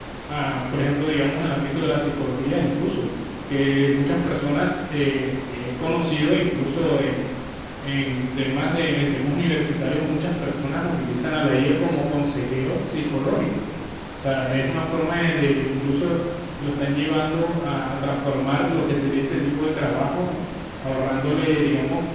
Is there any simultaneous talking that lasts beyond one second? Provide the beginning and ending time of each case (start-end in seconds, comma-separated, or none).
none